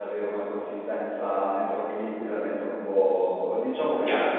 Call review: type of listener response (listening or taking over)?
taking over